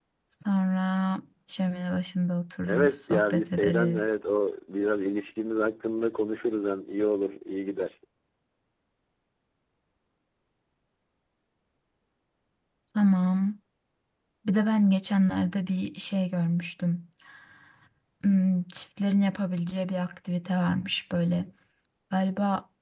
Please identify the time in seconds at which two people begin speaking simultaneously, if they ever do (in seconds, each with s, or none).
2.6 s